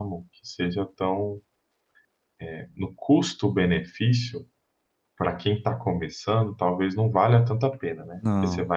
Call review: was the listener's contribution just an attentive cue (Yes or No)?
Yes